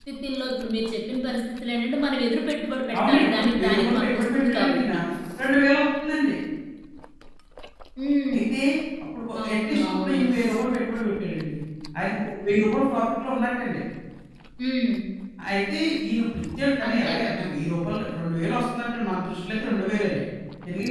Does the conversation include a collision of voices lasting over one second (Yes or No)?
Yes